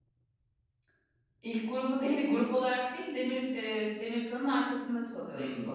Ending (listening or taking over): taking over